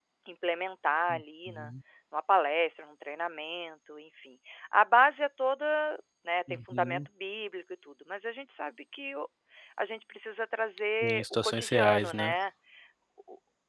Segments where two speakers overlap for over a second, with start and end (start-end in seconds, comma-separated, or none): 11.0-12.3